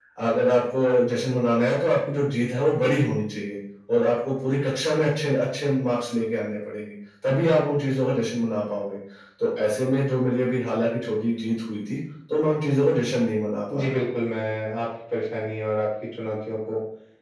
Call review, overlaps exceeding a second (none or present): none